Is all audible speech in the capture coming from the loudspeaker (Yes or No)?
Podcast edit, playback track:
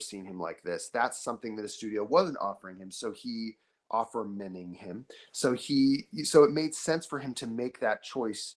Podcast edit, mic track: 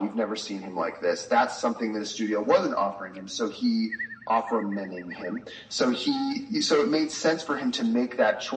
Yes